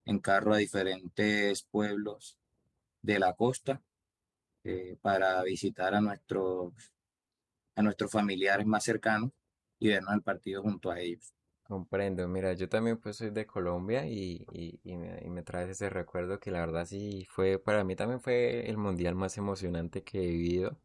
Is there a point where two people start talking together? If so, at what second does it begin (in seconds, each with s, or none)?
none